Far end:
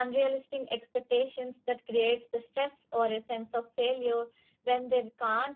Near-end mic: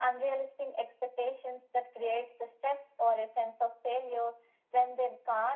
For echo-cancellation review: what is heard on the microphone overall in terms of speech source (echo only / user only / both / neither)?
echo only